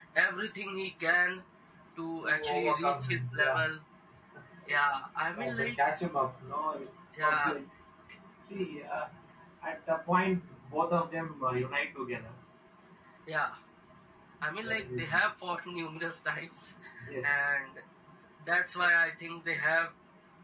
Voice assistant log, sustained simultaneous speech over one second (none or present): present